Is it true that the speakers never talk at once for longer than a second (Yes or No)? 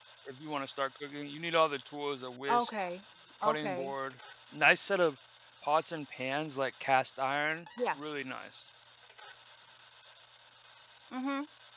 Yes